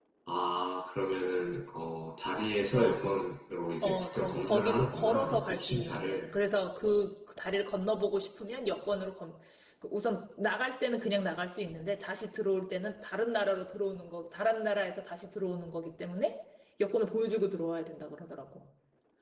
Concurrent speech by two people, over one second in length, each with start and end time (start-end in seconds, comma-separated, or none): 3.8-6.2